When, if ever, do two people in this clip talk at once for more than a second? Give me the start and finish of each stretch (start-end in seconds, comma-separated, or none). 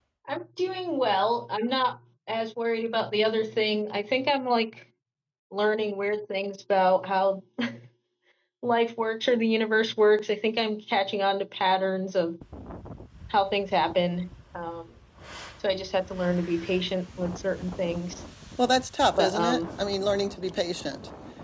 none